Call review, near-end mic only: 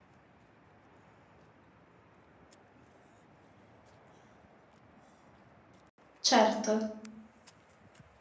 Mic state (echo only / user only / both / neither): user only